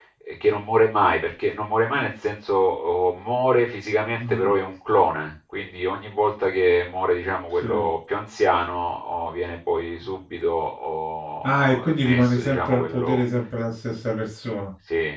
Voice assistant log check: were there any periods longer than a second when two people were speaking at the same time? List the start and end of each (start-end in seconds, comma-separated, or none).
11.4-13.2